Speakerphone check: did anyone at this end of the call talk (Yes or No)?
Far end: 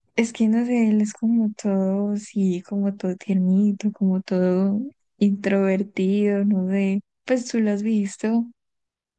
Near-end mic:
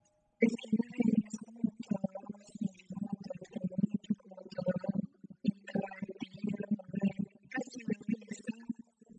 No